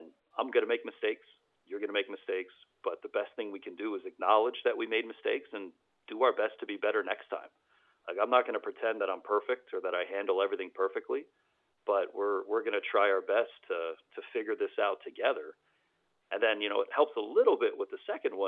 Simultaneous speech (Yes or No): No